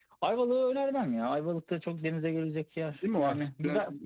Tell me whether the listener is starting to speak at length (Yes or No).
Yes